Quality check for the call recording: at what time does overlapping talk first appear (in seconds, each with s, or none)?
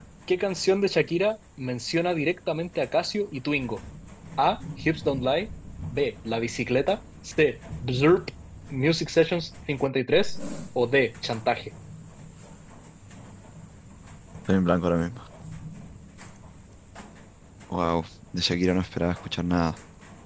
none